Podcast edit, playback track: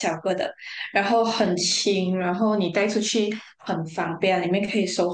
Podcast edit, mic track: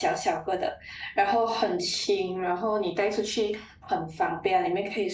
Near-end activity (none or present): none